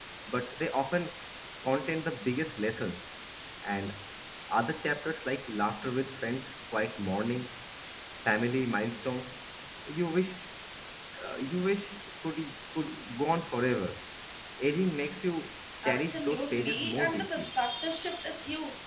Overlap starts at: 15.8 s

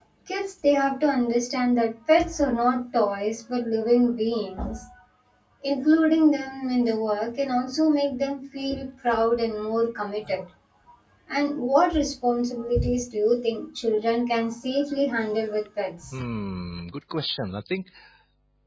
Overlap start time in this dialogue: none

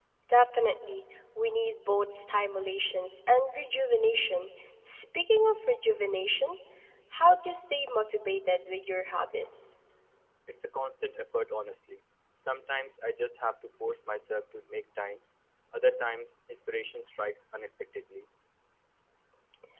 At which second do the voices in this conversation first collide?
none

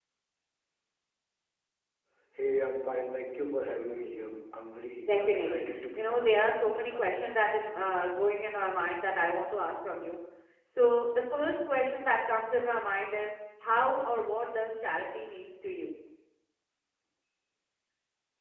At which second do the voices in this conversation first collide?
5.1 s

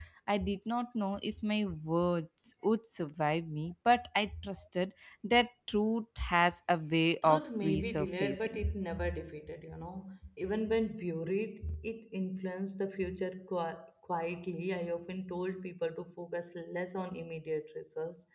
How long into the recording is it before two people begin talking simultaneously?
7.2 s

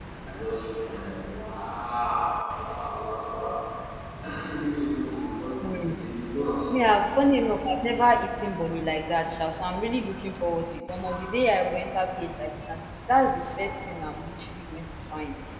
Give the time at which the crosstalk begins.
none

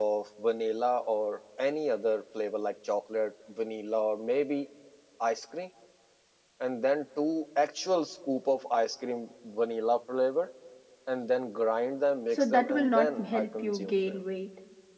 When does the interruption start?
12.3 s

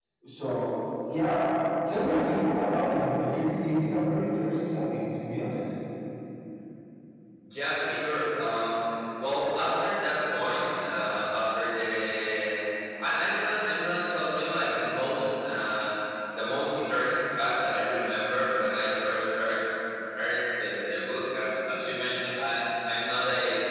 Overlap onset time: none

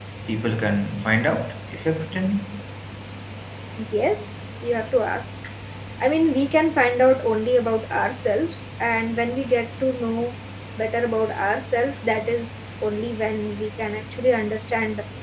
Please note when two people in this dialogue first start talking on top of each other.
none

